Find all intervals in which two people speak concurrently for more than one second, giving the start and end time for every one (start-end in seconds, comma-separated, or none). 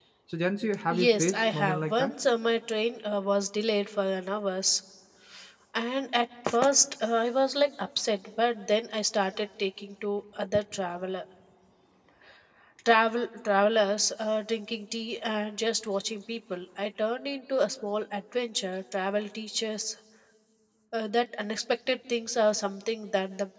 0.9-2.1